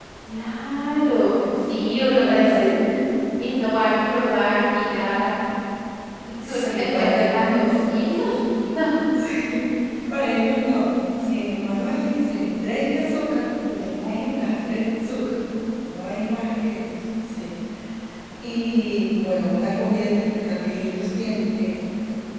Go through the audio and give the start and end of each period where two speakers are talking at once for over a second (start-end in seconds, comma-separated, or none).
6.4-7.7